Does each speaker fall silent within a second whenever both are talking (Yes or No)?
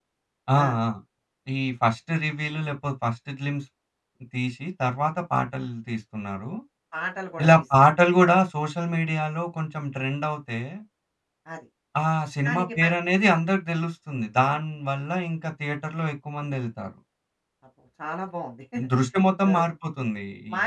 Yes